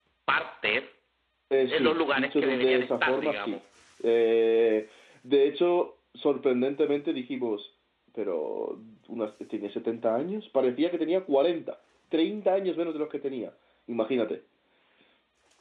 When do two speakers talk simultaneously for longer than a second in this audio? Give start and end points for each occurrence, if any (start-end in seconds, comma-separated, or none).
1.7-3.6